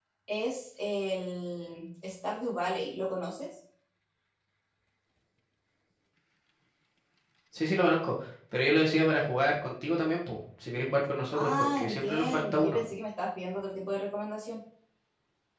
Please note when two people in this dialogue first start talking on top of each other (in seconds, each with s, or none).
11.3 s